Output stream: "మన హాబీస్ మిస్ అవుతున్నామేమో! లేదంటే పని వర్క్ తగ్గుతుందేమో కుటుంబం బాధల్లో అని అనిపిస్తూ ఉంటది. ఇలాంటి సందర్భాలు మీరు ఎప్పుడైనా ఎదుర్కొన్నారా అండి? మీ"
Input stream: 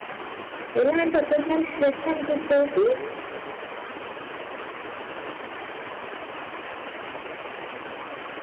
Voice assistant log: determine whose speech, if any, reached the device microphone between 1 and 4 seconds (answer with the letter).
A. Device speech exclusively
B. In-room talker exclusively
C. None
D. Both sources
B